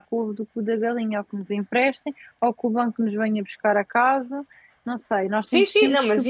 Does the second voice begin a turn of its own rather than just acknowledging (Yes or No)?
Yes